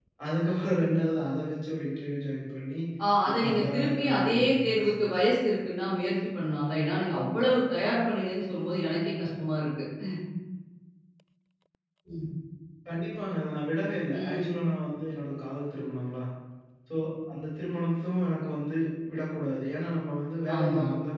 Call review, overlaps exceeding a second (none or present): present